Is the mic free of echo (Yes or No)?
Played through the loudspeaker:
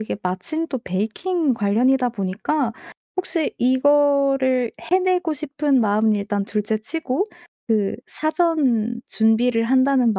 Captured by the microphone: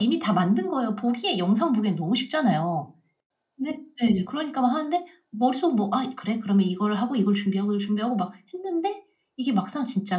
Yes